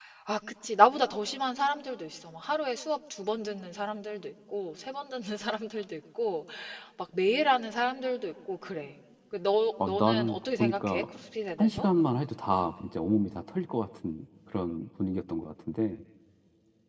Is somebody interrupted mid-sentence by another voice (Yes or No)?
Yes